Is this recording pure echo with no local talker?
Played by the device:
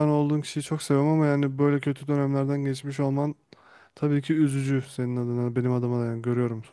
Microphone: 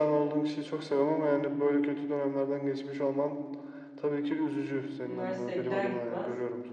No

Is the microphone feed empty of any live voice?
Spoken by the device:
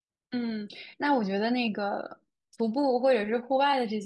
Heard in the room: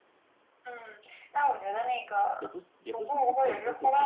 No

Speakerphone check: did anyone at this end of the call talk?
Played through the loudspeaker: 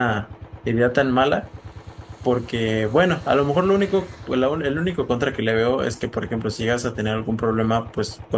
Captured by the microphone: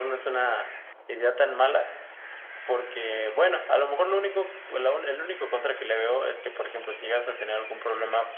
No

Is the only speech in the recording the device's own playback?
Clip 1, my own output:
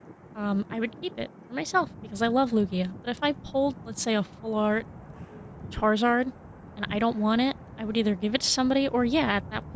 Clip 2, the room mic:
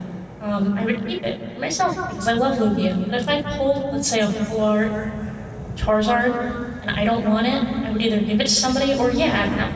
Yes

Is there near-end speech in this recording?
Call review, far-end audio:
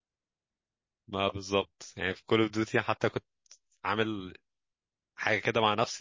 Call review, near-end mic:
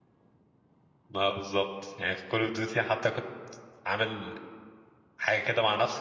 No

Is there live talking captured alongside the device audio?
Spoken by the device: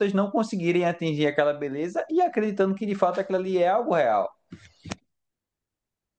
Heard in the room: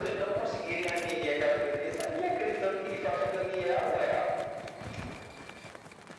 No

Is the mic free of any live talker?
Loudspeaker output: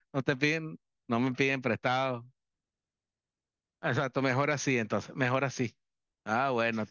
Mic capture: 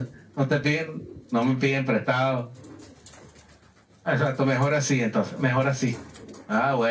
Yes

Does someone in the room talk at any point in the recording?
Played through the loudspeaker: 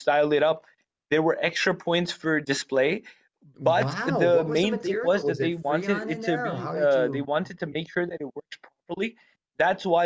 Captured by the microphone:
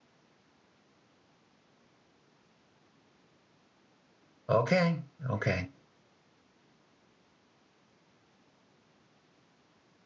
Yes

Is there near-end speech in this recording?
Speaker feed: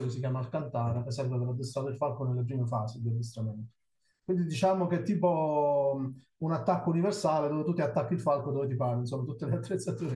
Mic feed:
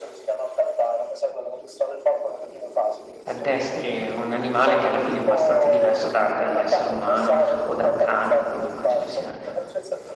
Yes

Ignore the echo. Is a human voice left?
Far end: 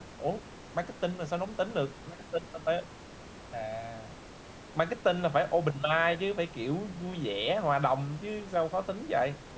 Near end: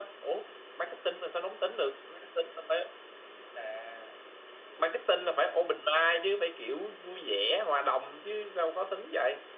No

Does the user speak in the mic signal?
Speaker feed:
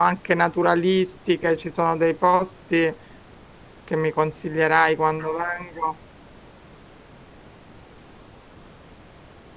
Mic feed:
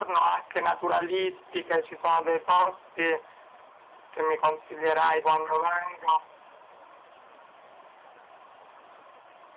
No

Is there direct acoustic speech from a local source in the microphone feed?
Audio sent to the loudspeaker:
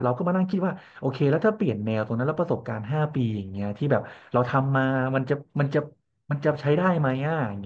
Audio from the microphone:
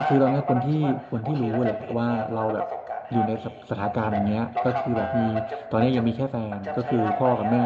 Yes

